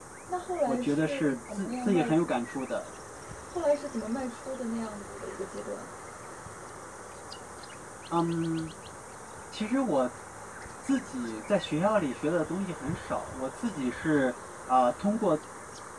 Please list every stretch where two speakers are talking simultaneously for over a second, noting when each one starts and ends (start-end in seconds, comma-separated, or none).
0.7-2.4